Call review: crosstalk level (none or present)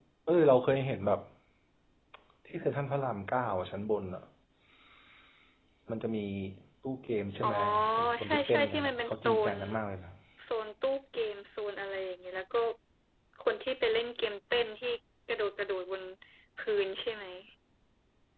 present